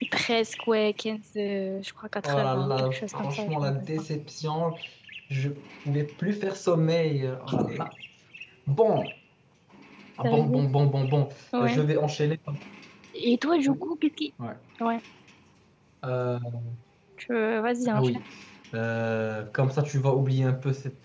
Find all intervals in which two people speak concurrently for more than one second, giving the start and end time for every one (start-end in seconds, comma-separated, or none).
2.2-3.9